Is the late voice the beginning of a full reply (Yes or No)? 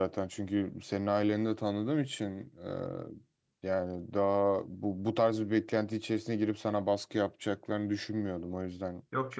Yes